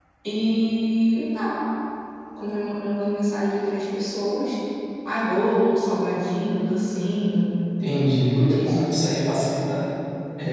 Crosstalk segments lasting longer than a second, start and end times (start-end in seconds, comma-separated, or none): none